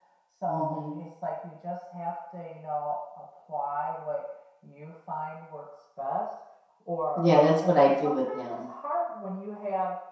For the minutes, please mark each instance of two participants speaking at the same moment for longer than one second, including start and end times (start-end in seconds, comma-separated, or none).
7.2-8.7